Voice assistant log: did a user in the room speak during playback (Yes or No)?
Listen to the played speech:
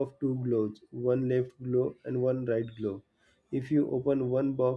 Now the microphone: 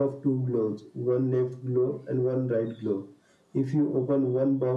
No